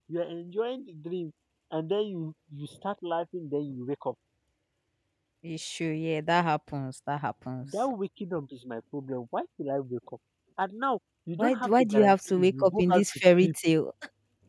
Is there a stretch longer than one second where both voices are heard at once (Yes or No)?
Yes